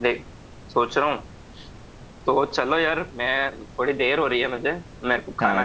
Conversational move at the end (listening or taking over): taking over